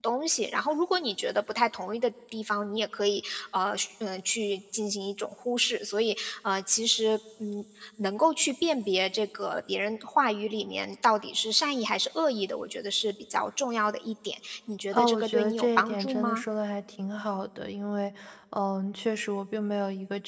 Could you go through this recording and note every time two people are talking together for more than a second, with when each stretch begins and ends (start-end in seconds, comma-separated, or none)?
14.9-16.4